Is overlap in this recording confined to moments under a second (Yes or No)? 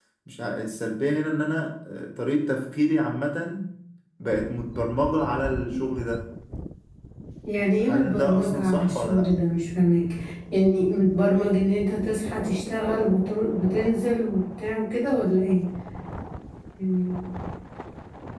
No